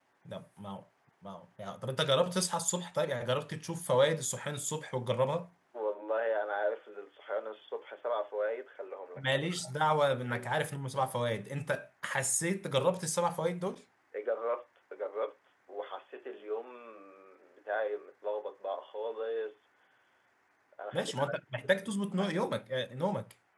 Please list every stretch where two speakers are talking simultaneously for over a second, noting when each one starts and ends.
20.9-22.6

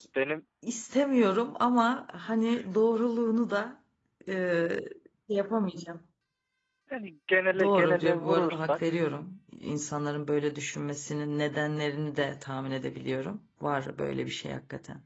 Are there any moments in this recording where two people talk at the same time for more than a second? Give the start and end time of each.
7.6-9.0

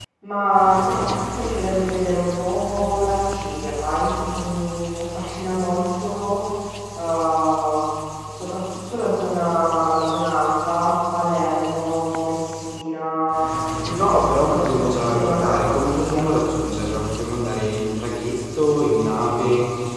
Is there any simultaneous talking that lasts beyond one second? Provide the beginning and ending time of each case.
14.1-16.2

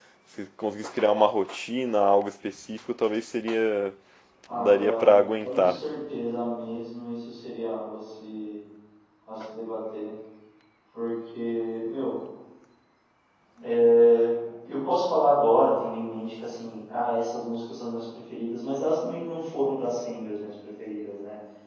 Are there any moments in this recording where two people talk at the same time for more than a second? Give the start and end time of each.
4.5-5.8

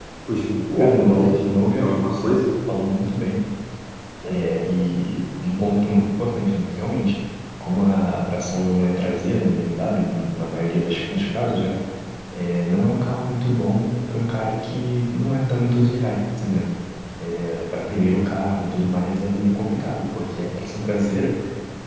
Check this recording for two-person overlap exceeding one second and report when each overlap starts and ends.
0.8-2.4

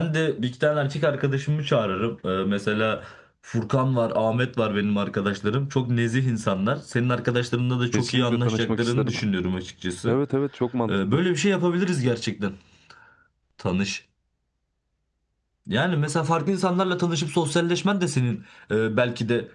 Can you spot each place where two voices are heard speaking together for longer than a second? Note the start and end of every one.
7.9-9.1

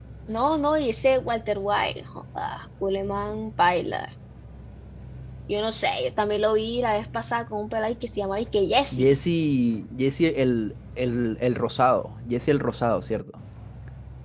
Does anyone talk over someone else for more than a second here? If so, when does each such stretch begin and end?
none

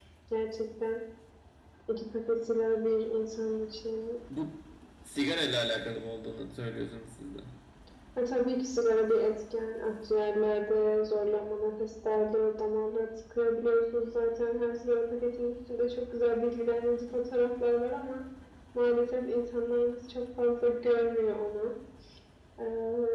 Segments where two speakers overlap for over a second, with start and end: none

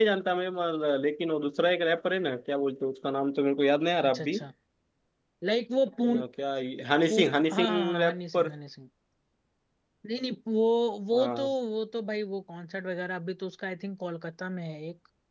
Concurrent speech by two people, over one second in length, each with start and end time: 7.1-8.5

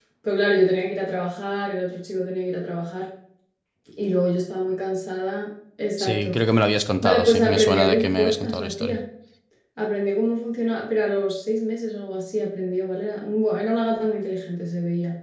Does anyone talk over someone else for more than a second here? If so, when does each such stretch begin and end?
7.0-9.0

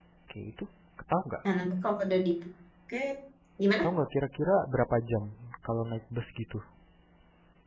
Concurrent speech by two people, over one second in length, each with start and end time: none

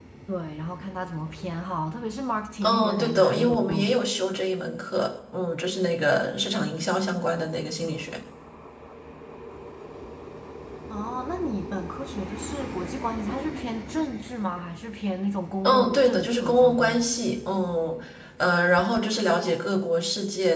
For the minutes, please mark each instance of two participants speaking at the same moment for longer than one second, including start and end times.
2.6-4.1, 15.6-17.0

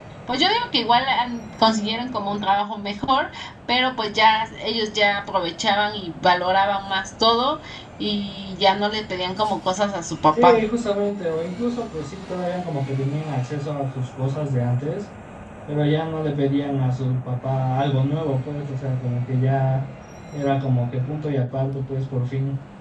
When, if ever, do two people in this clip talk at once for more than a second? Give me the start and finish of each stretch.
none

